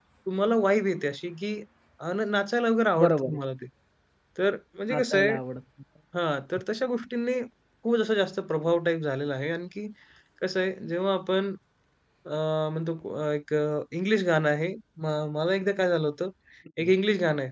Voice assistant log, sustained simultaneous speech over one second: none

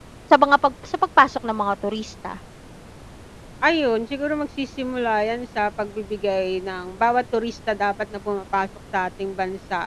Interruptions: none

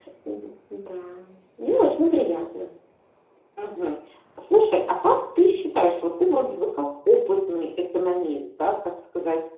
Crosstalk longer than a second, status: none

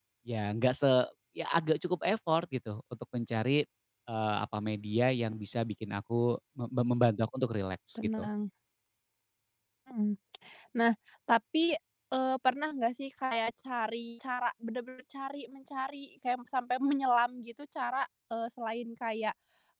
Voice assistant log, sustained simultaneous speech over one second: none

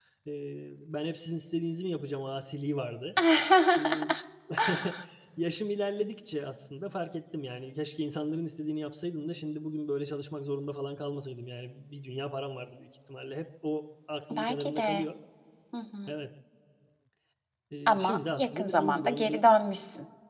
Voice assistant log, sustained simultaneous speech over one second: present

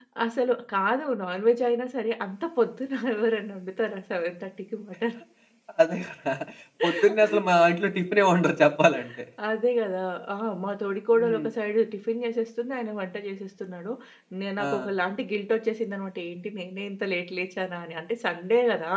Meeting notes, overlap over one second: none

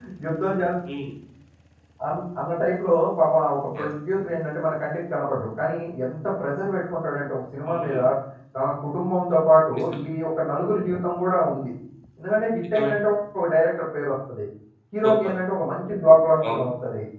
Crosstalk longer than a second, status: none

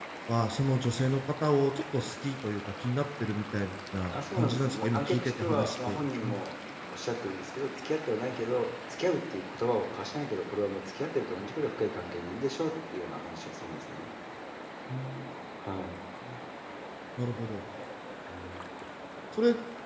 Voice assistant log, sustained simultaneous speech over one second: present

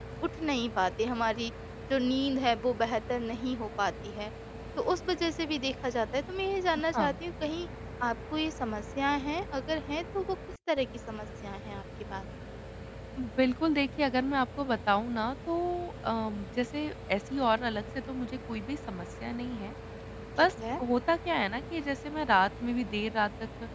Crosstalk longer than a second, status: none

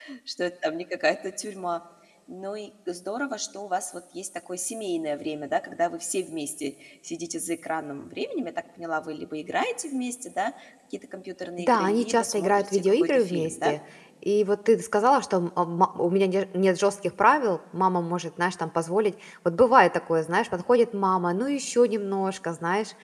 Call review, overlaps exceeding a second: present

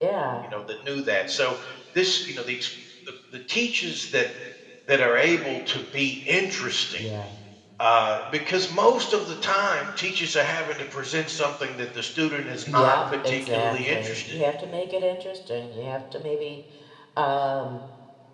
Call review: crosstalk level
present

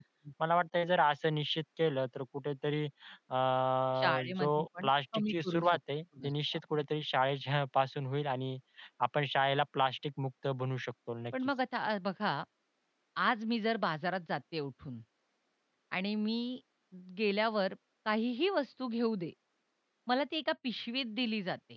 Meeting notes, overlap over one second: present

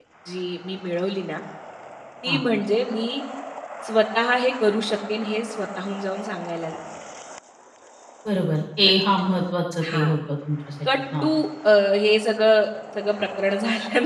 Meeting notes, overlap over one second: none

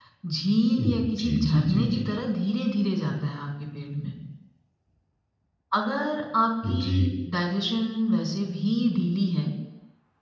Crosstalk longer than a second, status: present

